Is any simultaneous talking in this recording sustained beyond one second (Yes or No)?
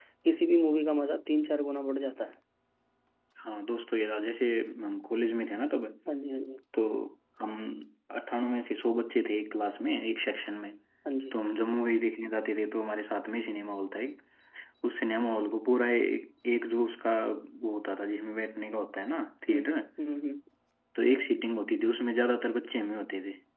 No